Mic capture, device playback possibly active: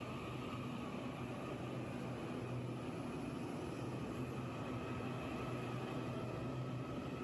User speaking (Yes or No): No